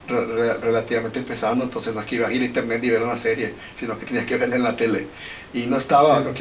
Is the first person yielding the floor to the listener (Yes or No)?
No